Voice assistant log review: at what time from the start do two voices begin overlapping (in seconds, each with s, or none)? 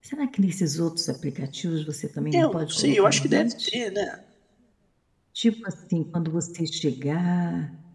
2.3 s